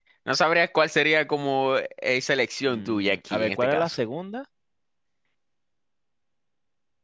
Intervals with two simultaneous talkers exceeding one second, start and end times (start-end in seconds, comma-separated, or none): 2.6-3.9